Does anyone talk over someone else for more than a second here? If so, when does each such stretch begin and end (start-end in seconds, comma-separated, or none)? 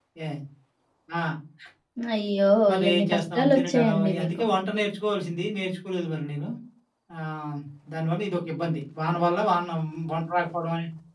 2.9-4.4